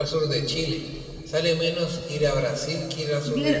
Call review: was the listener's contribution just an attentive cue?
No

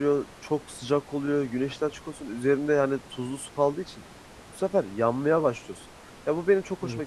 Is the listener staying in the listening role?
Yes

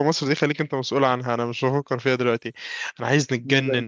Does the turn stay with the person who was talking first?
Yes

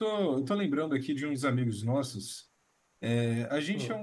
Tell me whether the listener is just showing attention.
Yes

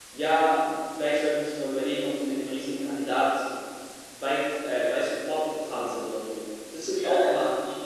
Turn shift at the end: Yes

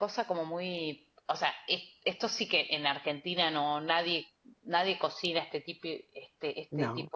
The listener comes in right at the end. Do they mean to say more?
No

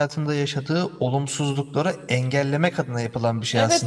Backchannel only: No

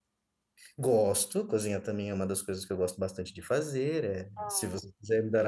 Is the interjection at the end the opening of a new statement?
No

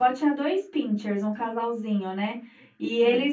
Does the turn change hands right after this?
No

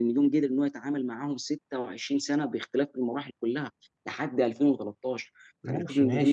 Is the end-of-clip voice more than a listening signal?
Yes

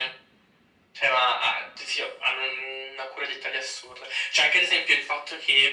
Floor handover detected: No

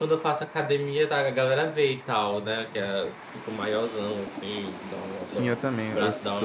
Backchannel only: No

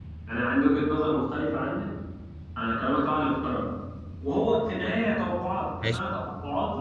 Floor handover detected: No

